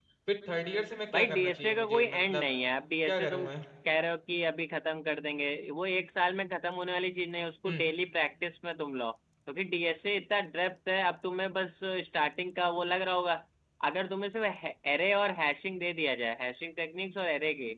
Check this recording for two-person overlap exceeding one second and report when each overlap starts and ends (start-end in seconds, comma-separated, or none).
1.1-2.4